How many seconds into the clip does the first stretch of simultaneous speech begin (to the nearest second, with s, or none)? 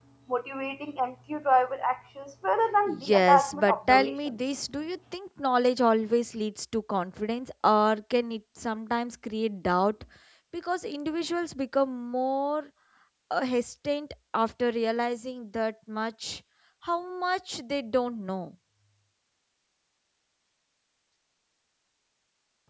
3 s